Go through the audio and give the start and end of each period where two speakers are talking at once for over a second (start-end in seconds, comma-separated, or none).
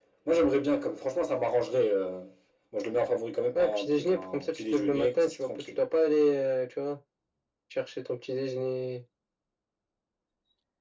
3.5-5.7